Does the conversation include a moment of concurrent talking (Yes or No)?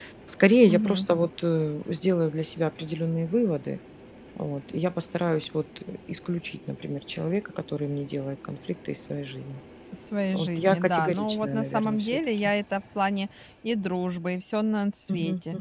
Yes